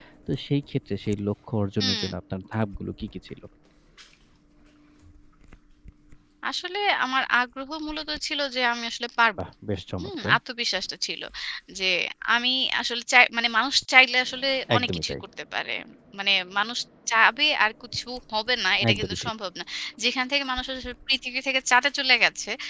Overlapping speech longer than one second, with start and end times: none

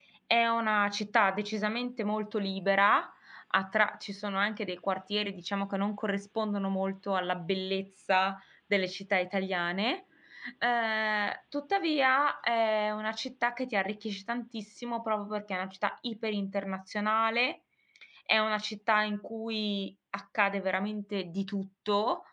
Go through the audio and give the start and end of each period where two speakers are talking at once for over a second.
none

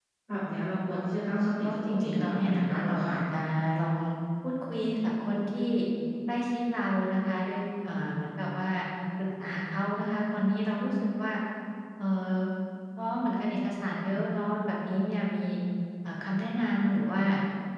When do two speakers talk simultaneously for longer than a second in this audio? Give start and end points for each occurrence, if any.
1.6-3.1

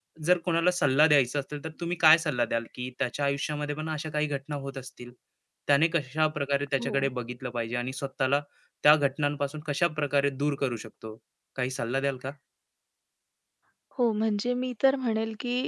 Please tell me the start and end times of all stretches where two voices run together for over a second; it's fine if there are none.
none

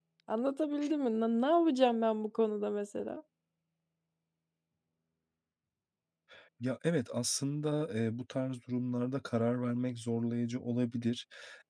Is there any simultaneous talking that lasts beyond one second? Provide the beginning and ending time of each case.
none

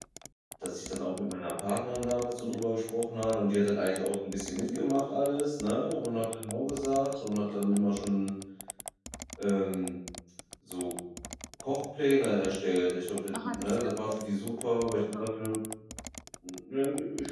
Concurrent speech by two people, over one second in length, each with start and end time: 13.4-14.6

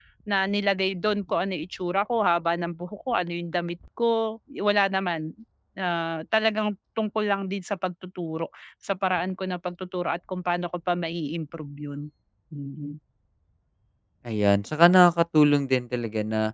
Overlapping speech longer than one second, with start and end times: none

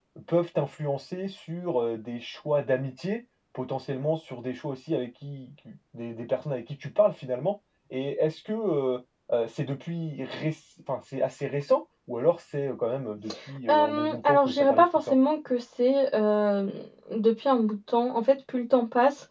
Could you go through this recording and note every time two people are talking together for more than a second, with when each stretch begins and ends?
13.7-15.2

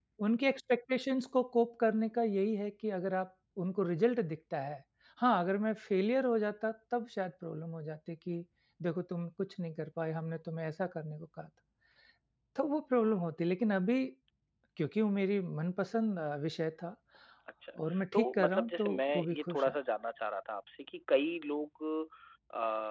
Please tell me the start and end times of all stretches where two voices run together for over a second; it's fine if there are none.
18.1-19.7

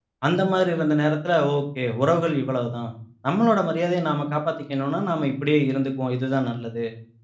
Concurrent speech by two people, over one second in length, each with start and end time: none

